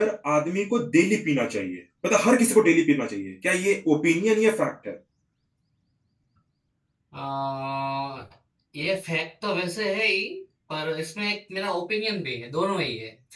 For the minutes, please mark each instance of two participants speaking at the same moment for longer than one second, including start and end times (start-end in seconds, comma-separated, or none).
none